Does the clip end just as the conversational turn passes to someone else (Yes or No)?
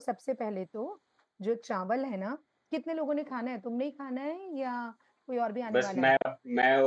Yes